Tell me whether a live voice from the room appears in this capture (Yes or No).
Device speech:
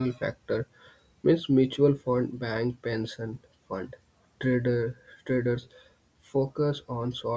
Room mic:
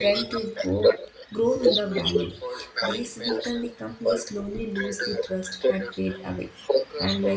Yes